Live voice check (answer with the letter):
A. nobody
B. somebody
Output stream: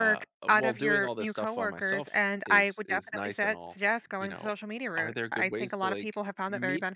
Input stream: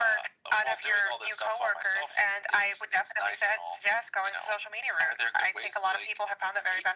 A